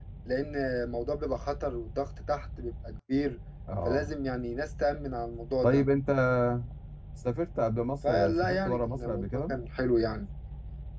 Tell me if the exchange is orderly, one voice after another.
No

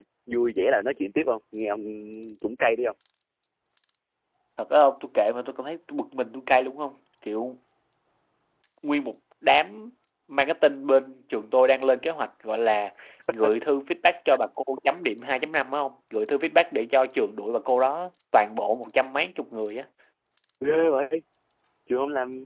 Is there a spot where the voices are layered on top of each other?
No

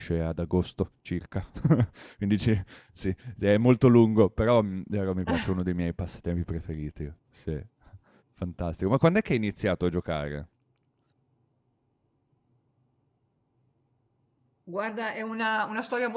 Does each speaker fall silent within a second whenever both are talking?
Yes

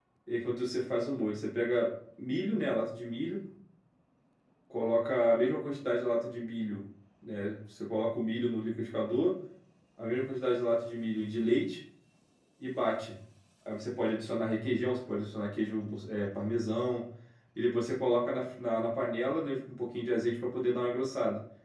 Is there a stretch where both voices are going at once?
No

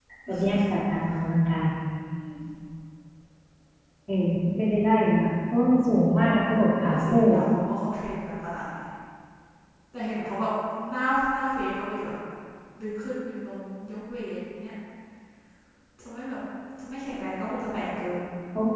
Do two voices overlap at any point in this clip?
Yes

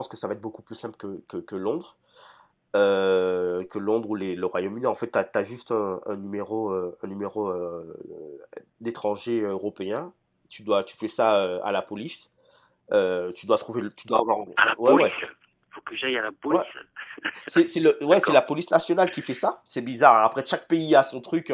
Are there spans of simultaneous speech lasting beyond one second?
No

